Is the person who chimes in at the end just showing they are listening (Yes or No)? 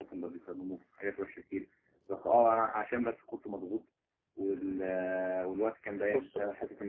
Yes